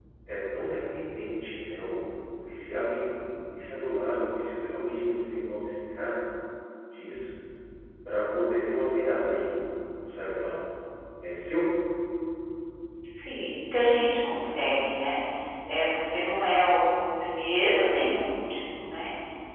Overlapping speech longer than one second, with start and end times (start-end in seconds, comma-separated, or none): none